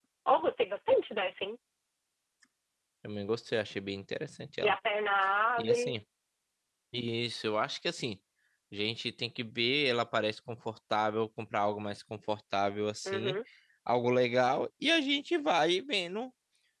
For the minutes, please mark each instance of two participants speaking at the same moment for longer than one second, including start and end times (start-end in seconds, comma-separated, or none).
none